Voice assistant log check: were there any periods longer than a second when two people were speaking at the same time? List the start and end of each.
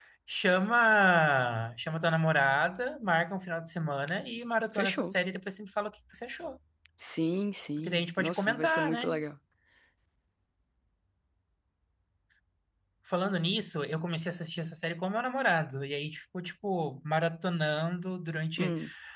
7.8-9.0

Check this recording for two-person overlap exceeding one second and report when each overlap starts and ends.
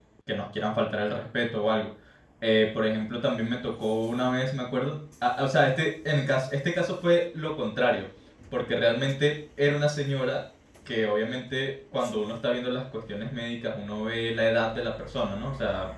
none

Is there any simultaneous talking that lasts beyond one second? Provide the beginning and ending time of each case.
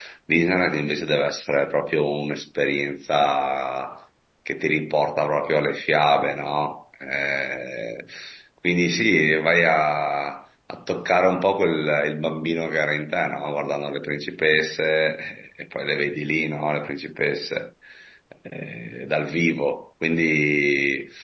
none

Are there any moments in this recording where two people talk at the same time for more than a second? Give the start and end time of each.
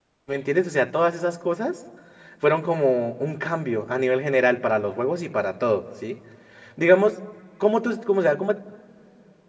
none

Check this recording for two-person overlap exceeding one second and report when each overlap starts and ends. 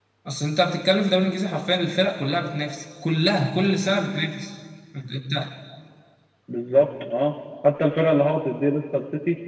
none

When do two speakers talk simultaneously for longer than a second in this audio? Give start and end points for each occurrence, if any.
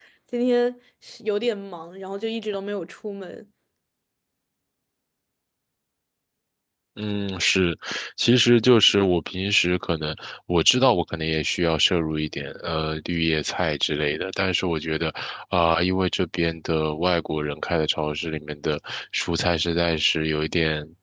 none

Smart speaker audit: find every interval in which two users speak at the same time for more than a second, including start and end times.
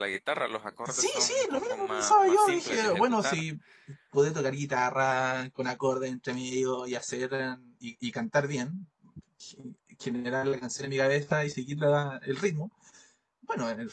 0.9-3.4

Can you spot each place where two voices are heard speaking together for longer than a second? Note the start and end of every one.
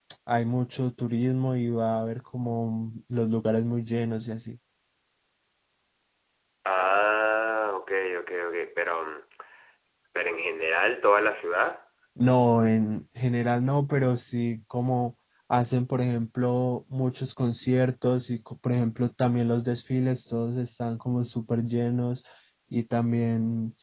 none

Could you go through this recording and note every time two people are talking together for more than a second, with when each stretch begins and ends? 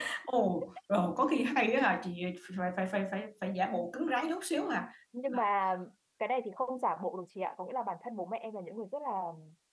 none

